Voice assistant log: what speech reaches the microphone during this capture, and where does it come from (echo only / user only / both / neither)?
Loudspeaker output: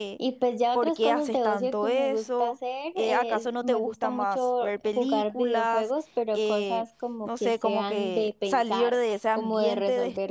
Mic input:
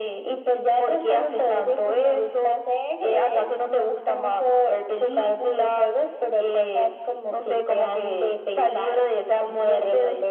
echo only